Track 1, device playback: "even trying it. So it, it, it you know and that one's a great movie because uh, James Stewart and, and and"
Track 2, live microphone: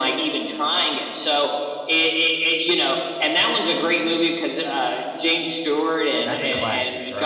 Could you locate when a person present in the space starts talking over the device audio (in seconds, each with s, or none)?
6.2 s